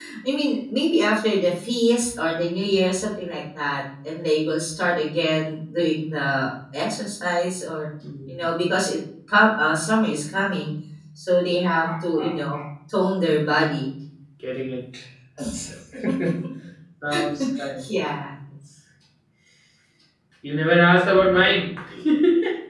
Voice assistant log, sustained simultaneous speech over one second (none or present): none